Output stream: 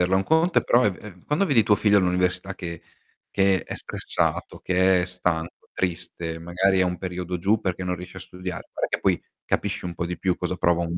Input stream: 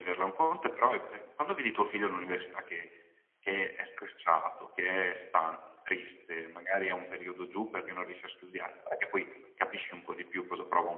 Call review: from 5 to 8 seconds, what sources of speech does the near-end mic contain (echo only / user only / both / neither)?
echo only